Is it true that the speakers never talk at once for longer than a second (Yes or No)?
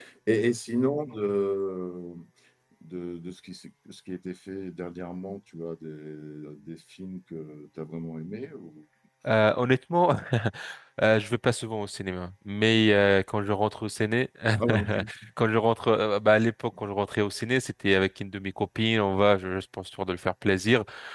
Yes